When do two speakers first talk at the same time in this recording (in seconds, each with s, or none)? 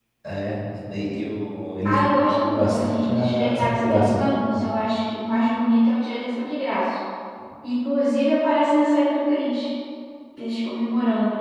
1.9 s